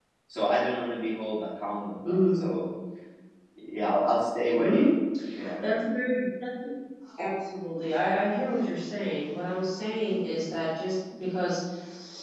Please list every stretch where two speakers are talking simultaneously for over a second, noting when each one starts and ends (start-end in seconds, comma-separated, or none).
none